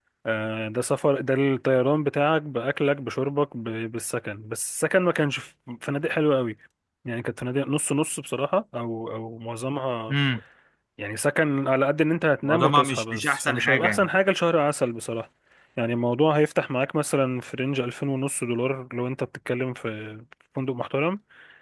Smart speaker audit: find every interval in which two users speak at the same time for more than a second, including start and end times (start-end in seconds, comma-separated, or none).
12.4-14.1